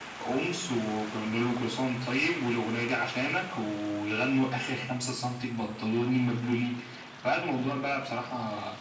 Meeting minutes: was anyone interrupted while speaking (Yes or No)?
No